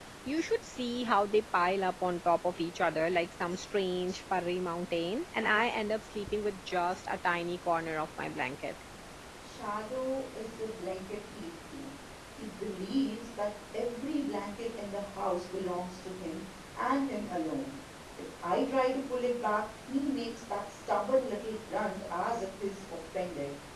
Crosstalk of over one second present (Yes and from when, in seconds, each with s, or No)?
No